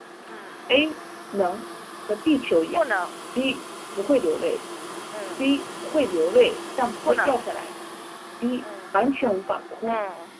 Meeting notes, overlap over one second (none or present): none